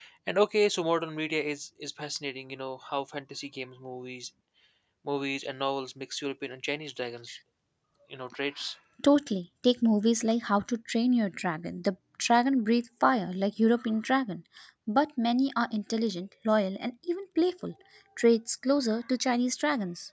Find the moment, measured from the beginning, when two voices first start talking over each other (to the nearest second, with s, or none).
none